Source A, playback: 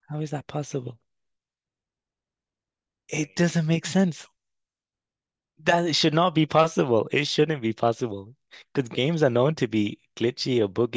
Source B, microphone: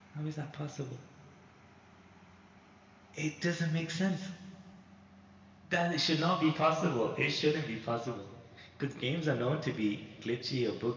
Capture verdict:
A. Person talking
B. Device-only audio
B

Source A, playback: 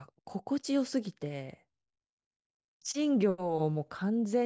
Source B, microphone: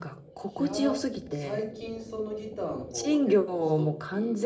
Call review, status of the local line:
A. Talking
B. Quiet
A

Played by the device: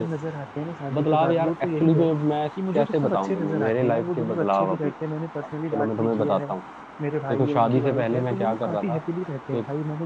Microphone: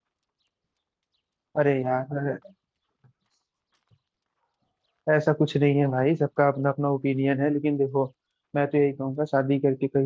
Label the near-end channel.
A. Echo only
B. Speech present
B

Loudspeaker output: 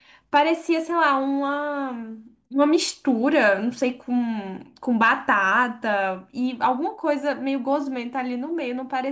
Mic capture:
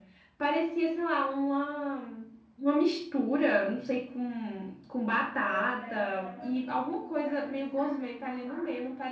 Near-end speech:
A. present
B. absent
A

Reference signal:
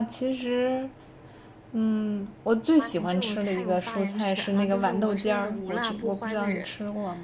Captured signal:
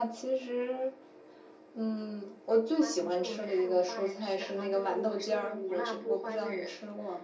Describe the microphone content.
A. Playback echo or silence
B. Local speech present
A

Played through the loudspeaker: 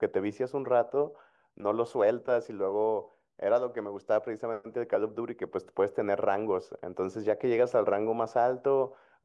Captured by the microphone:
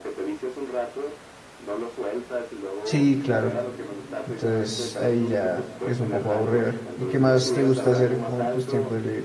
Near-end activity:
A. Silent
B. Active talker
B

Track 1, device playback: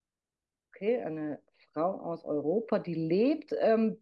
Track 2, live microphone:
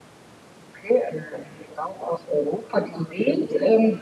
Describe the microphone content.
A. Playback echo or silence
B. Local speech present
A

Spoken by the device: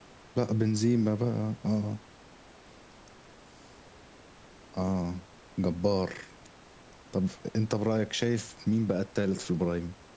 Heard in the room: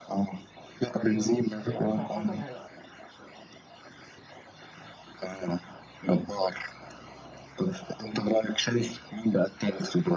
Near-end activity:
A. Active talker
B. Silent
A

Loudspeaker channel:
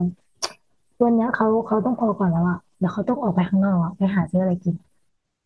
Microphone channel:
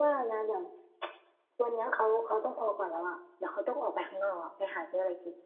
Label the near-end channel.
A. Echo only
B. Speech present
A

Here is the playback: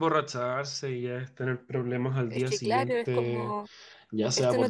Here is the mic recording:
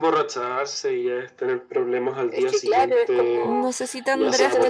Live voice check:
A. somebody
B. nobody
A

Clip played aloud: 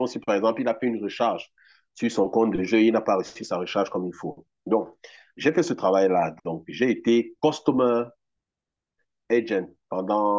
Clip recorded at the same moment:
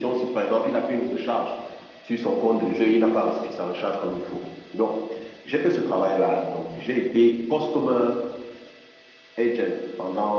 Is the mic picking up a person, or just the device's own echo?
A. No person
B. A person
A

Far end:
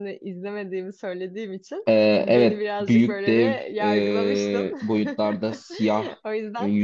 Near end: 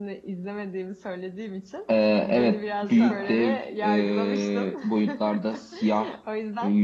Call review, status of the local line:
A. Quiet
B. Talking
B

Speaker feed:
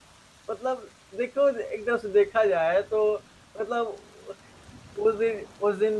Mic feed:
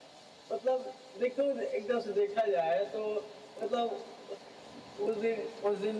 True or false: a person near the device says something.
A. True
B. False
B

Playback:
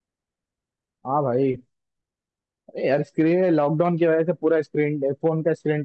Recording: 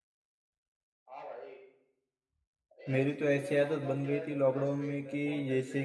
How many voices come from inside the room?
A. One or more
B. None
A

